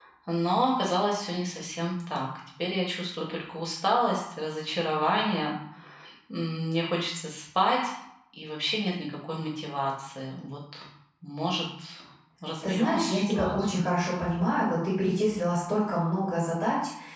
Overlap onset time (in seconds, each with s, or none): 12.6 s